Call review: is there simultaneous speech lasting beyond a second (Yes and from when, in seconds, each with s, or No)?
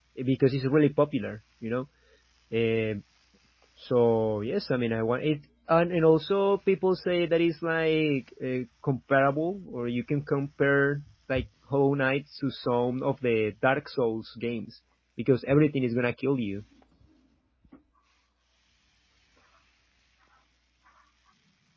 No